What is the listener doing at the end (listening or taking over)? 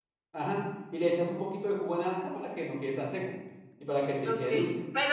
taking over